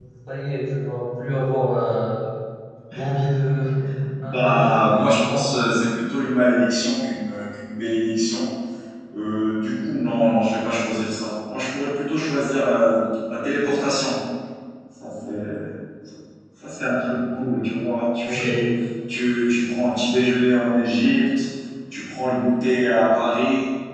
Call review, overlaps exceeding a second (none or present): present